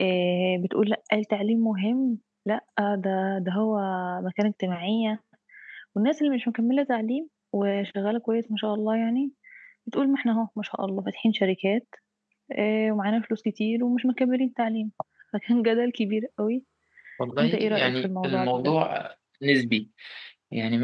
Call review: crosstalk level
present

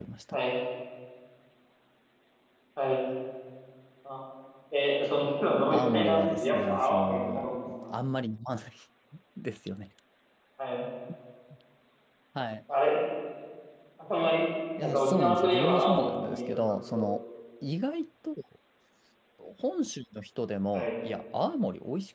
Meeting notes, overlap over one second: present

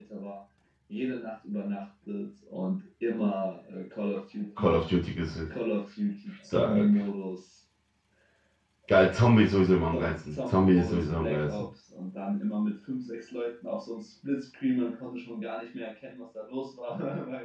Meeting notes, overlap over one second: present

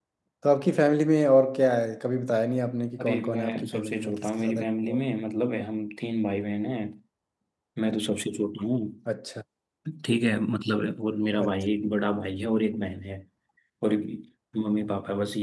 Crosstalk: present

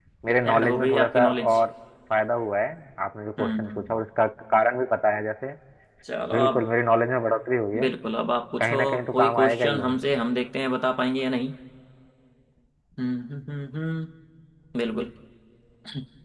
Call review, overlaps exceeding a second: present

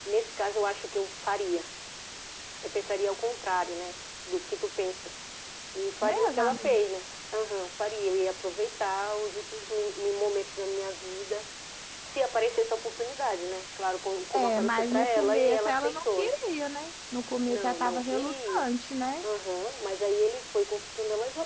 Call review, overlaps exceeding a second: present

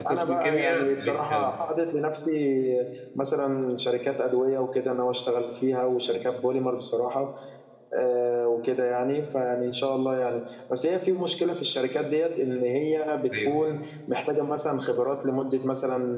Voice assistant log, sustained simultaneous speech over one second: present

